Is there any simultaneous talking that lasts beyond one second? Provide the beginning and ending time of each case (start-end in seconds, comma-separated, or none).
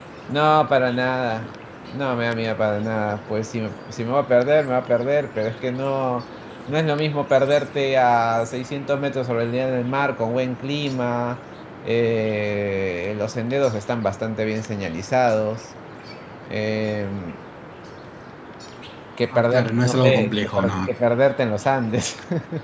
19.3-20.9